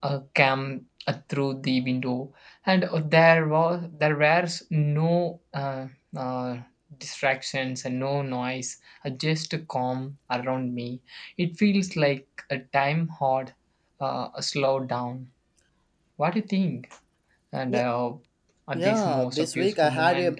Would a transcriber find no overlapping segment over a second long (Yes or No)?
No